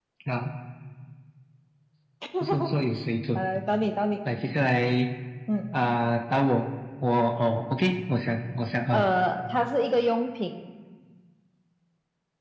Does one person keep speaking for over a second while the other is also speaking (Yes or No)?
No